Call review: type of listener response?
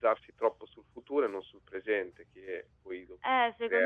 taking over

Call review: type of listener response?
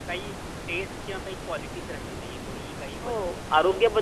taking over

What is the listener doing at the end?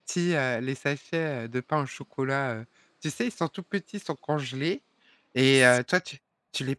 listening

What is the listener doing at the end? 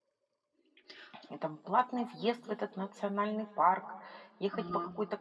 listening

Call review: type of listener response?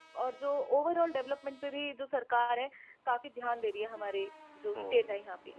taking over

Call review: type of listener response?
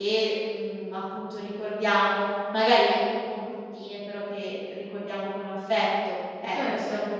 taking over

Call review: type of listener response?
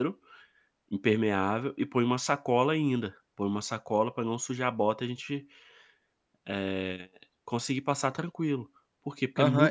taking over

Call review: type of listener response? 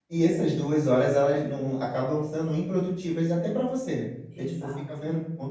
listening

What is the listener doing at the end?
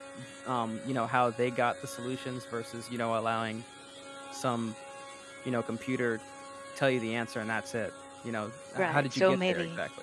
taking over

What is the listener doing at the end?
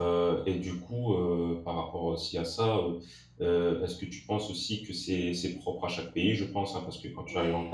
listening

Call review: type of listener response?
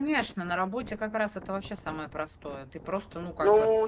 taking over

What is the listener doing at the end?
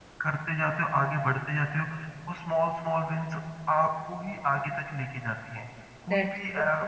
listening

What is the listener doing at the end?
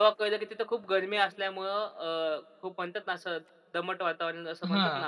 taking over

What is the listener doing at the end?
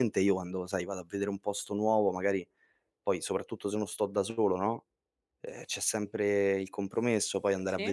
listening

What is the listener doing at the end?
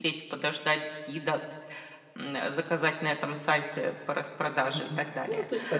taking over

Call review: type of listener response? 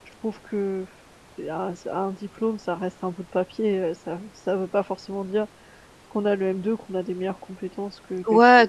taking over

